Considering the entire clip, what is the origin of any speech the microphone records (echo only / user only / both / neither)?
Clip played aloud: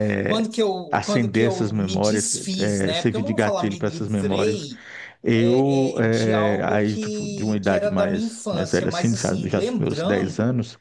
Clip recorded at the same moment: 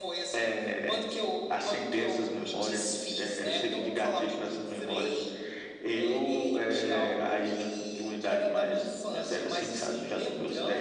echo only